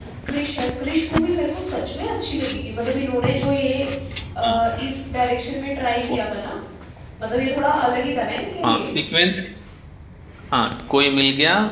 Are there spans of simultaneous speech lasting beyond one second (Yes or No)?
No